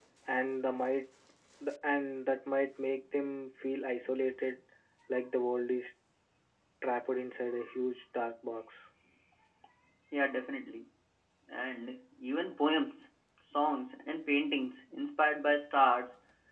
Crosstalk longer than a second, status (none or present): none